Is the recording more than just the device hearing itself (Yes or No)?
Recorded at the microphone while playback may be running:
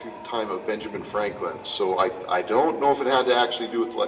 No